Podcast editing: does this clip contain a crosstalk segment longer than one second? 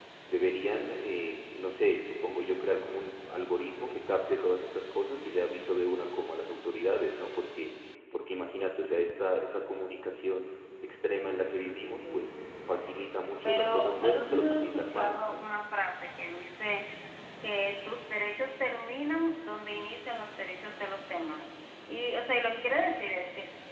Yes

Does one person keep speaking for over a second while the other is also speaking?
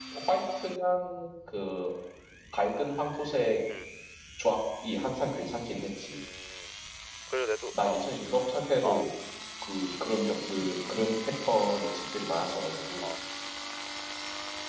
No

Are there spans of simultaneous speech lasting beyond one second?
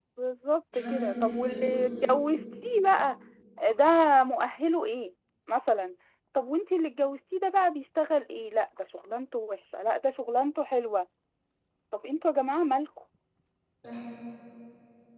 Yes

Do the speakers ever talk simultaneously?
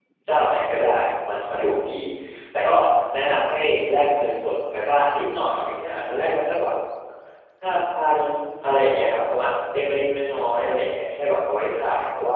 No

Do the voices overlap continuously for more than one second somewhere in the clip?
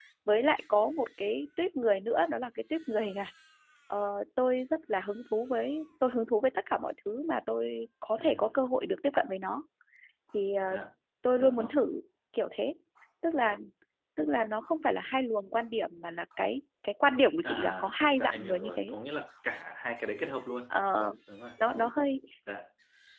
Yes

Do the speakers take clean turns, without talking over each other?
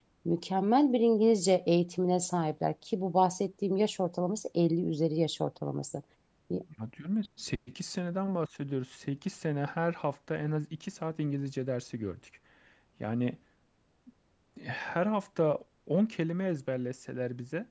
Yes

